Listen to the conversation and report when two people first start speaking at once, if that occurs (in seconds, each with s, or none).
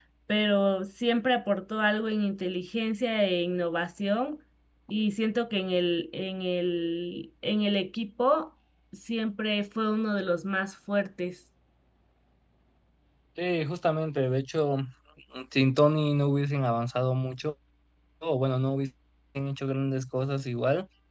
none